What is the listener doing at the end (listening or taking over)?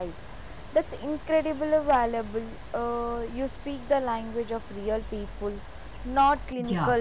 taking over